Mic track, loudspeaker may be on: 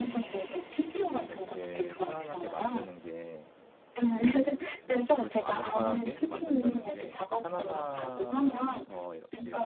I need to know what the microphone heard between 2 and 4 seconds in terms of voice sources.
both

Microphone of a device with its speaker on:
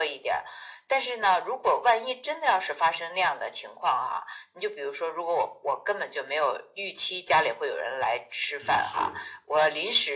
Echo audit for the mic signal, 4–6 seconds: echo only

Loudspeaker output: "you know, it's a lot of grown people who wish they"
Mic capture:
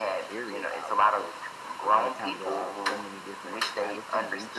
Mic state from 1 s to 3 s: both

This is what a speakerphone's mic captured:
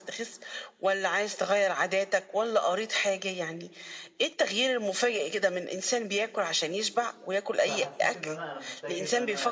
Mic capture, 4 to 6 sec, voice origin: echo only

